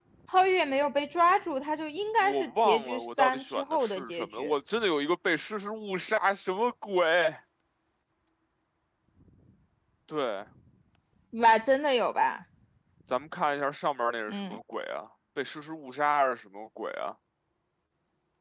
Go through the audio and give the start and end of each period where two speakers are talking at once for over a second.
2.2-4.5

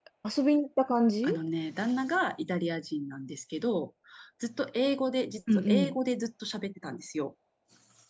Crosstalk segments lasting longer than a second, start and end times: none

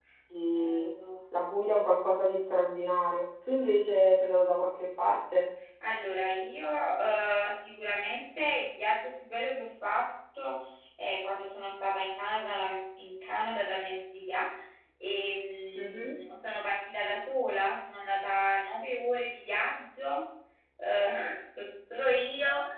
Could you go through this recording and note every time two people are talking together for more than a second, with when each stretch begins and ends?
none

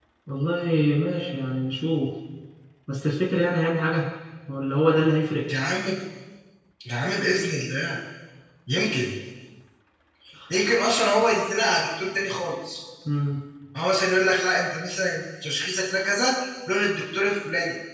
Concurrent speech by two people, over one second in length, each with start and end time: none

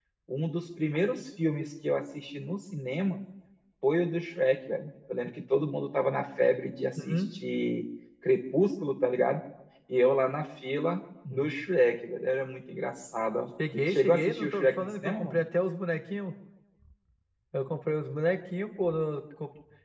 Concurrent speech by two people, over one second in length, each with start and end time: 13.9-15.4

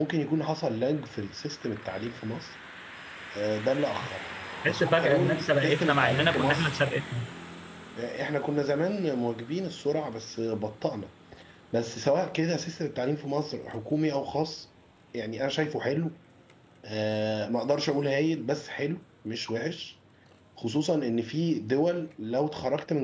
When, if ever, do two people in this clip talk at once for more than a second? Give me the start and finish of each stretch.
4.7-6.7

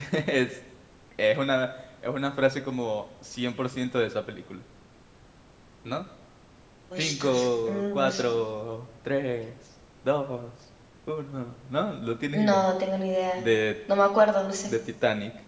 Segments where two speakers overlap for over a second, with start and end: 7.0-8.2

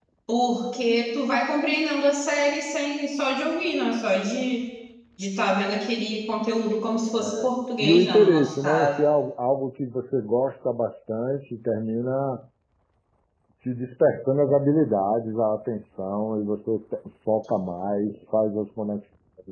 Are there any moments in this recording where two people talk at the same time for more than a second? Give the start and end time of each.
7.8-9.1

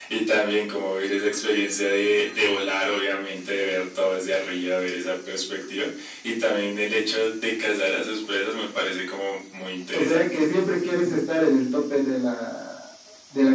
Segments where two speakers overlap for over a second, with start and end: none

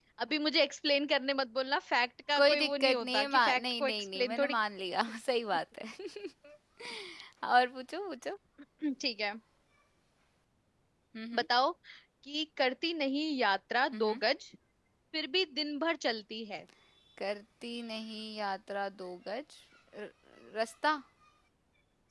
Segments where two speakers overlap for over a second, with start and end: 2.4-4.6

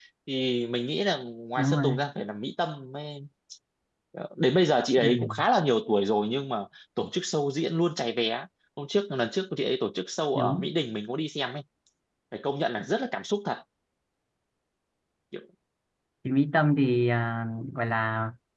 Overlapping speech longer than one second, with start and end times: none

